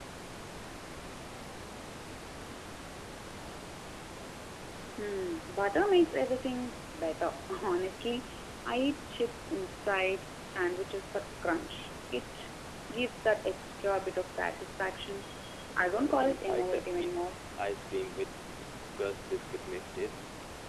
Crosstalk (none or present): present